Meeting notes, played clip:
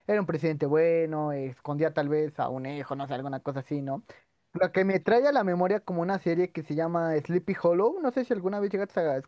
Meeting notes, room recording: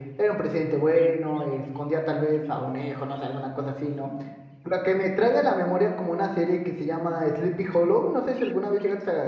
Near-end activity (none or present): none